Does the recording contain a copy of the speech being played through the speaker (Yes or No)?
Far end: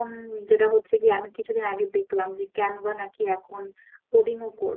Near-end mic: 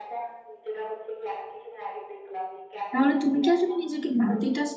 Yes